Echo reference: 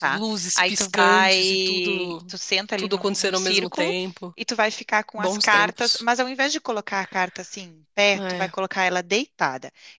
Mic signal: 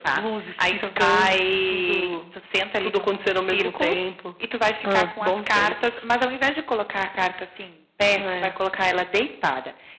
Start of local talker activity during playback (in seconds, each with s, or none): 4.8 s